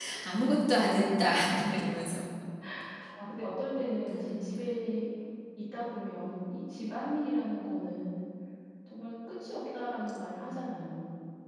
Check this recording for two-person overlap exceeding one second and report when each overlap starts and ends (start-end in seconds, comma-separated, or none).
none